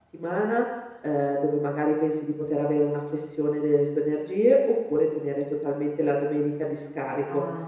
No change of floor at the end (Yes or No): Yes